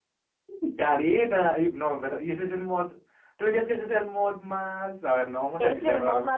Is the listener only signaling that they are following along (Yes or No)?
No